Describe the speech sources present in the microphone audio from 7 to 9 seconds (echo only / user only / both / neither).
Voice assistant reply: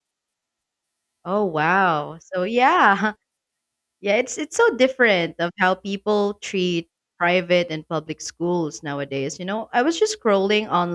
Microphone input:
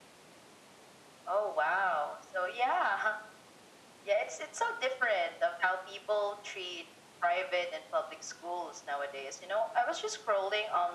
echo only